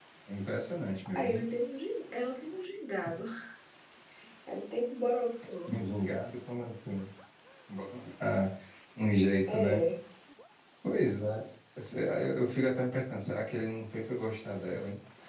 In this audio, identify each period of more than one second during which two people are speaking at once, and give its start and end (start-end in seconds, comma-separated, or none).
none